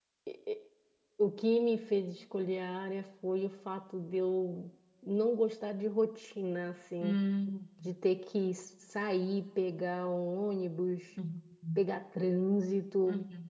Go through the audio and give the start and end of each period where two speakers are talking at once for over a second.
none

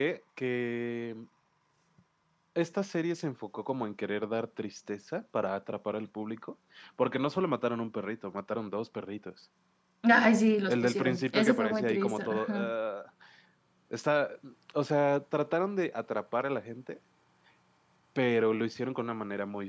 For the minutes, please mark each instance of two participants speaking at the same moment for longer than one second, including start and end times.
10.7-12.7

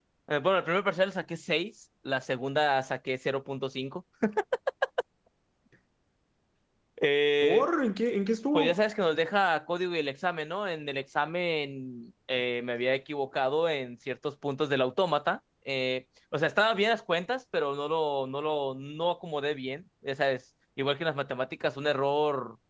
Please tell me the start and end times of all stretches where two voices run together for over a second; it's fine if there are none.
none

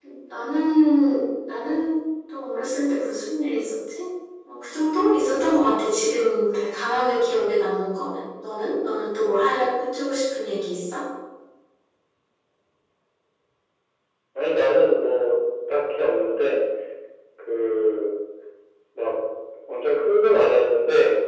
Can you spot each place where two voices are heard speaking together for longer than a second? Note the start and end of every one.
none

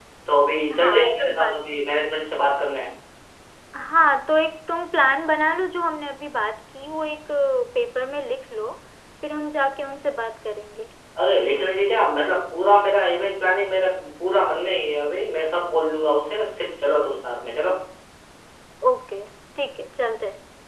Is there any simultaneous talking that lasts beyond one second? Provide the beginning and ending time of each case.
0.8-2.0

